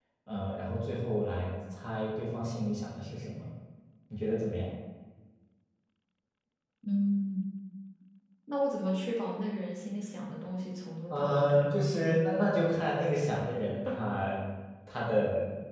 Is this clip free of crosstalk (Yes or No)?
No